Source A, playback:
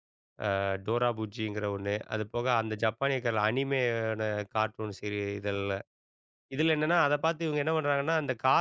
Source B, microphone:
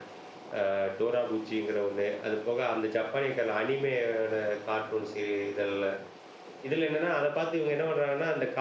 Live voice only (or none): none